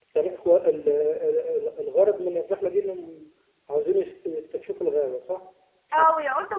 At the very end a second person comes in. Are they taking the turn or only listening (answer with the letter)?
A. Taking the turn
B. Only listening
A